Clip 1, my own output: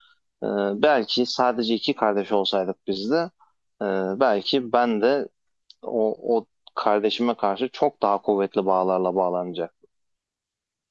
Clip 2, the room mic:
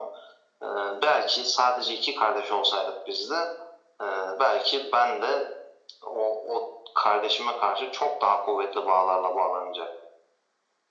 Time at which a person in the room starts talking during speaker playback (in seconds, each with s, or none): none